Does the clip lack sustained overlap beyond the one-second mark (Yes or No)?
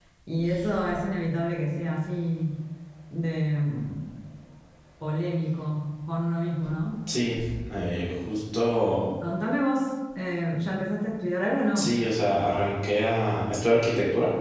Yes